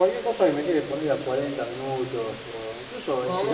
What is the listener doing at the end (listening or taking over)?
listening